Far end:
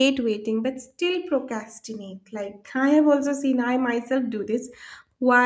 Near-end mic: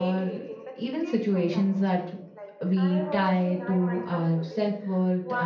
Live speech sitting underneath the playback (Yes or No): No